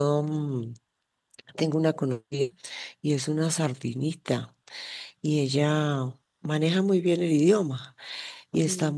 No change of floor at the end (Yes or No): Yes